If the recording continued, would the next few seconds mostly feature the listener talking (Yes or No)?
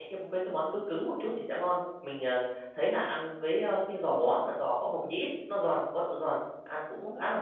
No